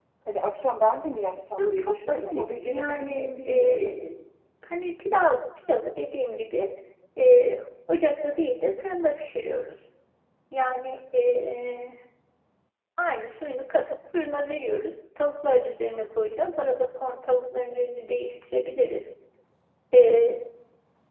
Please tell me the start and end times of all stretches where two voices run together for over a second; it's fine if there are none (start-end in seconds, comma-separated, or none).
1.6-4.0